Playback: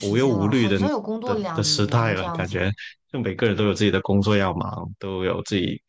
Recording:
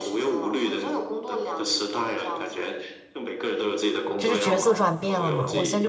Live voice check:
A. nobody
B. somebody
B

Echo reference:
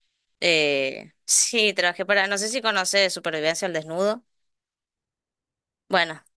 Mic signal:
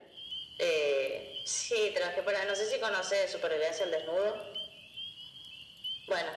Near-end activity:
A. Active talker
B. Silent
B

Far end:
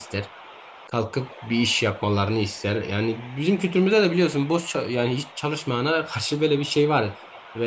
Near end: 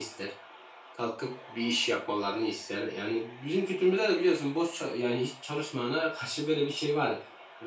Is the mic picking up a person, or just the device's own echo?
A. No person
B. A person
A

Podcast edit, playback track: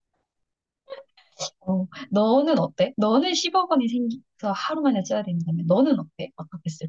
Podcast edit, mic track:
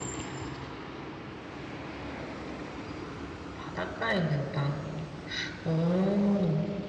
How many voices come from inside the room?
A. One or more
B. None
A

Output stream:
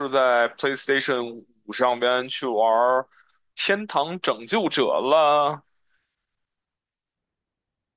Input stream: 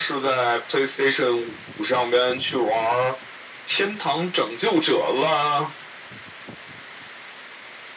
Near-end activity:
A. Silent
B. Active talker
A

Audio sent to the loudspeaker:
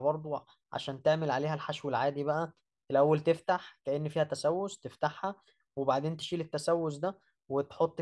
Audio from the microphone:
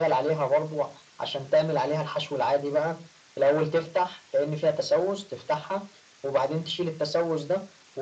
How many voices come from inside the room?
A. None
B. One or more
A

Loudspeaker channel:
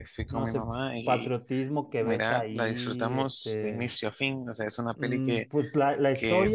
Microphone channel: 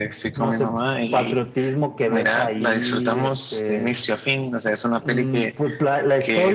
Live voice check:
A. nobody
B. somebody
A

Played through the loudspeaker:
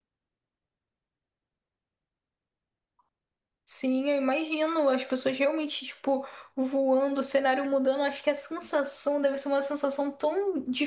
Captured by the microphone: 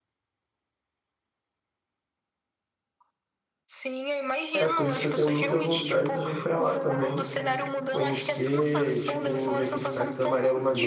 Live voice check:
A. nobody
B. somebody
B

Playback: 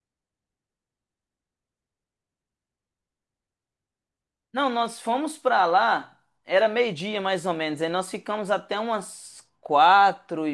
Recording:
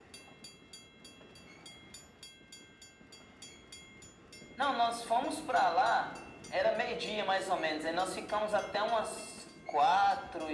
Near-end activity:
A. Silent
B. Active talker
A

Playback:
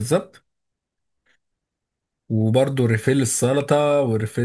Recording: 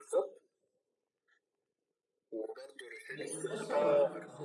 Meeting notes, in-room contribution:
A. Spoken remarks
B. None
A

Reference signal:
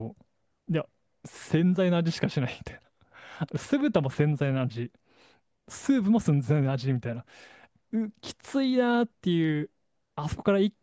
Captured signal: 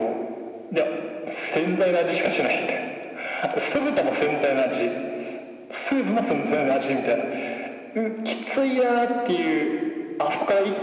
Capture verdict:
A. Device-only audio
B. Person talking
A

